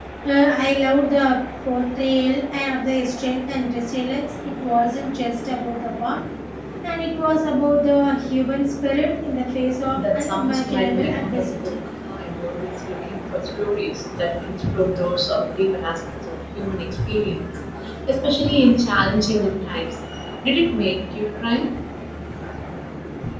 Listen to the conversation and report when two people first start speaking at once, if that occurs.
9.9 s

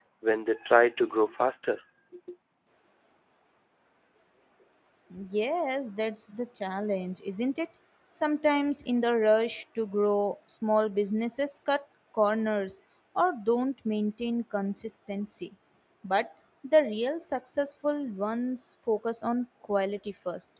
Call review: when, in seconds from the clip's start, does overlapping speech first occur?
none

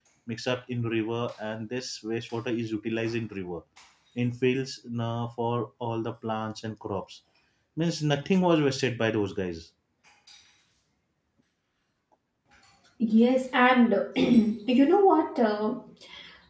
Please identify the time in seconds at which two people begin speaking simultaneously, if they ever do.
none

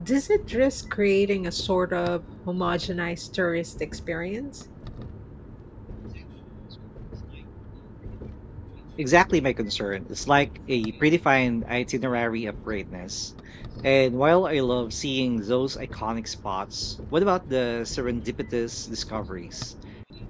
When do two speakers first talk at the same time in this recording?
none

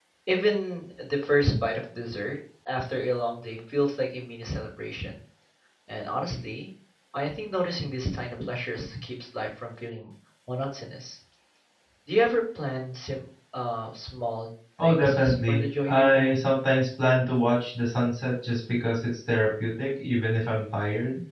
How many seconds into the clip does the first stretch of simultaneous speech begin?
14.8 s

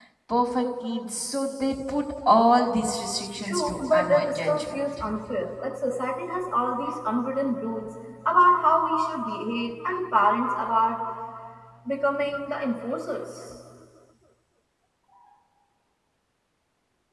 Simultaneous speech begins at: 3.4 s

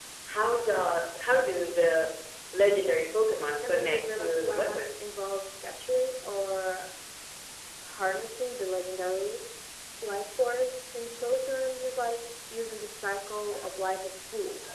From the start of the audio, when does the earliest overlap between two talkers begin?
3.6 s

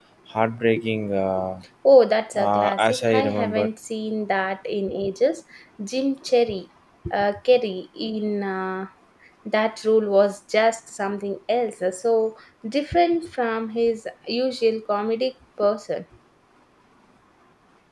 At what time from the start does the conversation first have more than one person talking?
2.3 s

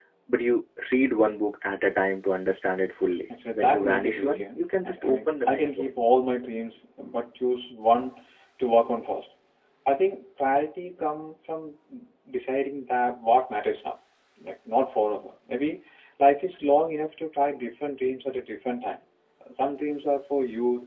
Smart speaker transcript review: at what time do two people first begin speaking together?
3.3 s

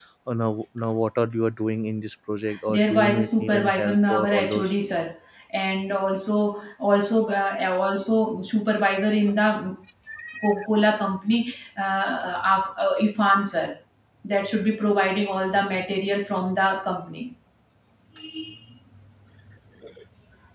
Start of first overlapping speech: 2.7 s

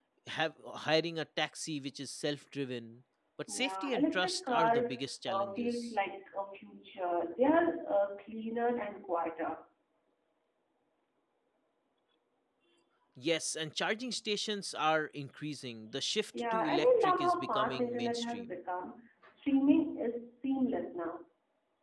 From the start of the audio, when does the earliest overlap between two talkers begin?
3.5 s

